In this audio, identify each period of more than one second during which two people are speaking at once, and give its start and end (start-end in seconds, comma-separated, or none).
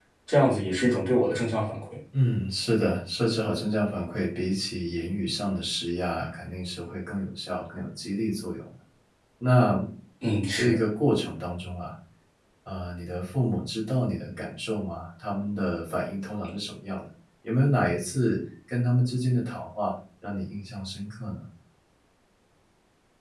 none